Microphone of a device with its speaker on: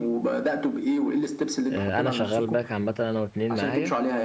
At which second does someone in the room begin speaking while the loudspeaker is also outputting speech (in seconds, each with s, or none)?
1.7 s